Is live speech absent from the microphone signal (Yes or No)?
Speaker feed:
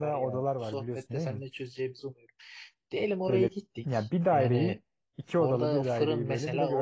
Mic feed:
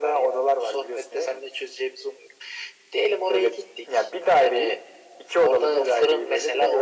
Yes